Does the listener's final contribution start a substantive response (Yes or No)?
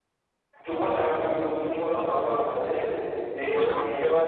Yes